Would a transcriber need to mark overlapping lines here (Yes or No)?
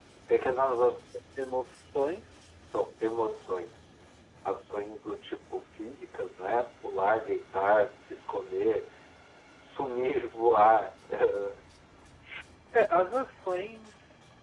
No